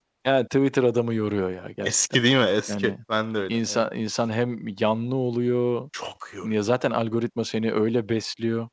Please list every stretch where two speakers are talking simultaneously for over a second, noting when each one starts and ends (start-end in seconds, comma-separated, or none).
none